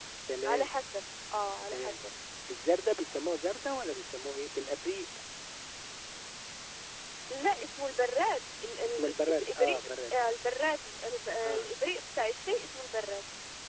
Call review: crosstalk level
present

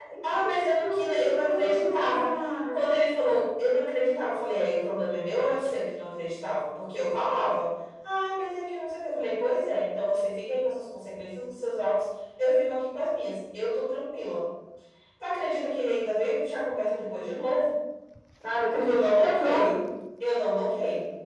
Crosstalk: present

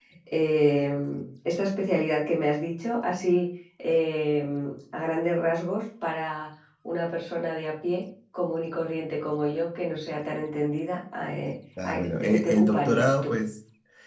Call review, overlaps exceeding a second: present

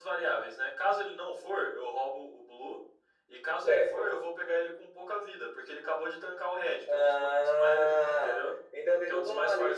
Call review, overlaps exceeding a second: present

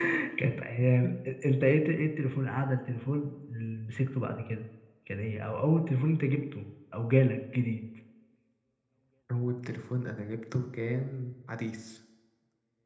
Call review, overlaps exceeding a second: none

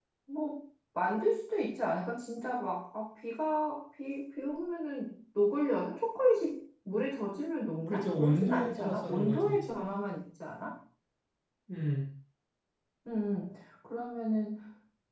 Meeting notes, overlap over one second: present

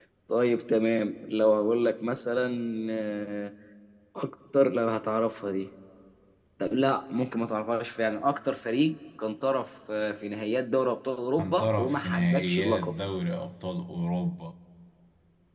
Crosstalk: present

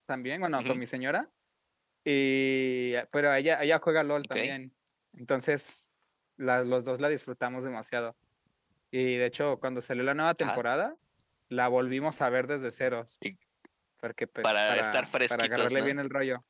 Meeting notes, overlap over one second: present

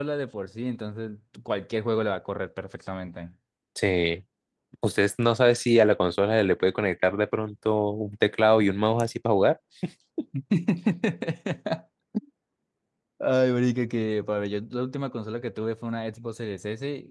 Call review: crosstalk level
none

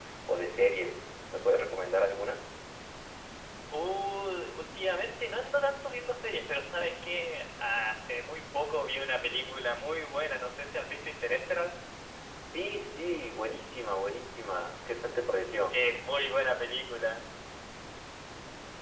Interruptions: none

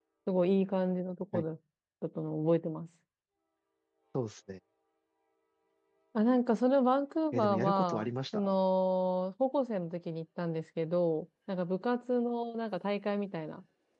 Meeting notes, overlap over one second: present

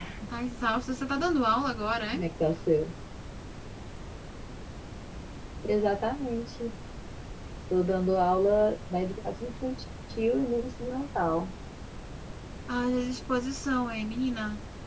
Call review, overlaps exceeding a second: none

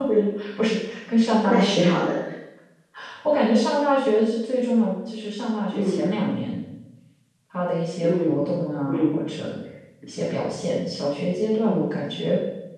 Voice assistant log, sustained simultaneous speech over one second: none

